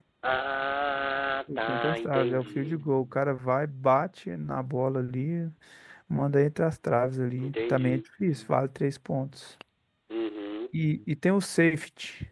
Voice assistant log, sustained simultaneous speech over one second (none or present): present